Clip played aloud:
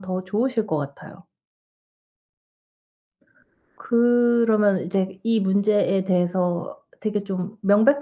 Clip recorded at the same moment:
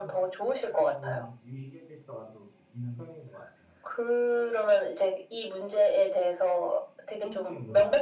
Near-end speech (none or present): present